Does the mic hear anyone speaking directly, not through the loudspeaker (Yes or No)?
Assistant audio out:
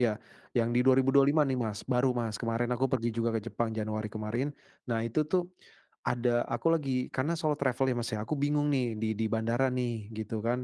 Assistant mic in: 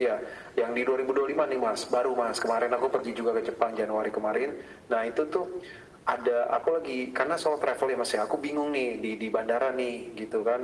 No